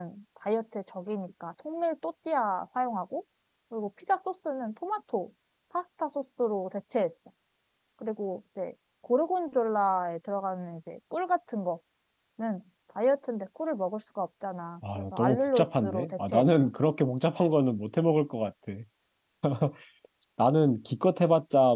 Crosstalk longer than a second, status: present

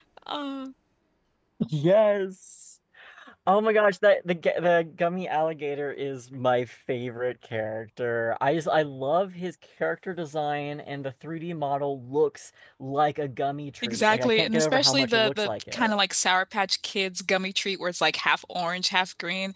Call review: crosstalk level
present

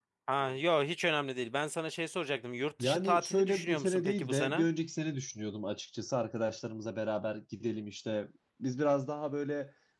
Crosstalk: present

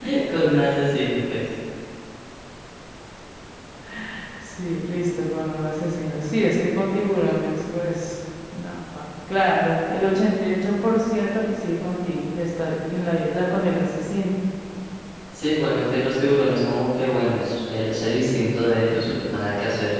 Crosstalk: none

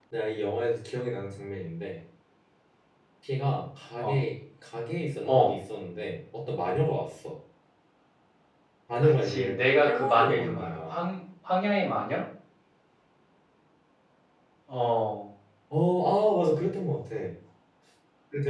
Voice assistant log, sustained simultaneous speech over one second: present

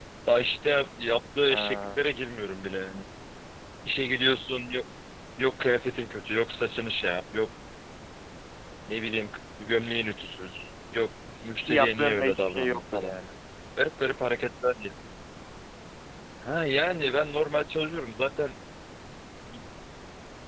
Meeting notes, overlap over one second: present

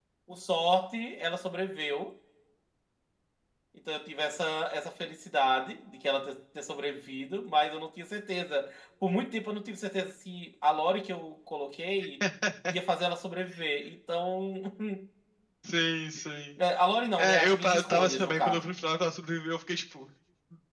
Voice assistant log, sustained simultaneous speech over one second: present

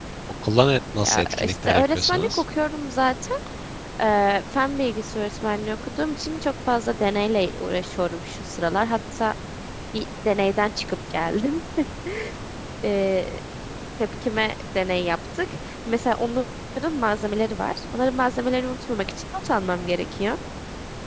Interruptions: present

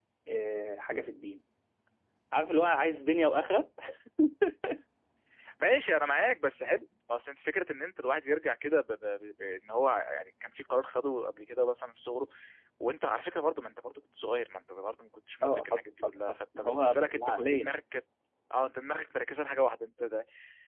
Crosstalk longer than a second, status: present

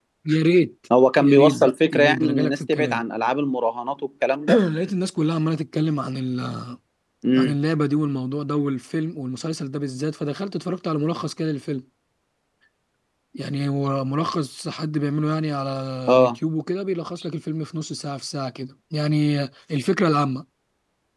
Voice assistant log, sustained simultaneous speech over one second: present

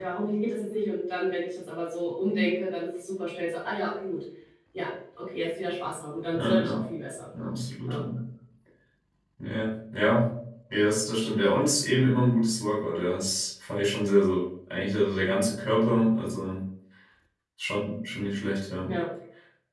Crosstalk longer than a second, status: none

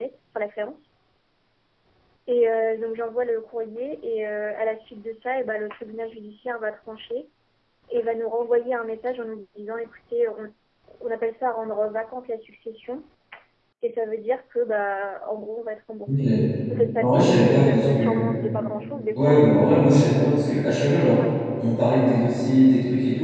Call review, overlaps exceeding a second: present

